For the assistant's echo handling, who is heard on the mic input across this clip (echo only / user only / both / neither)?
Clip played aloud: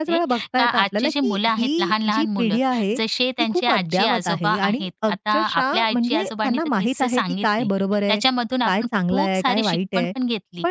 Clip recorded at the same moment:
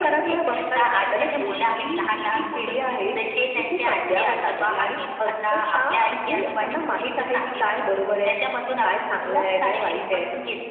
echo only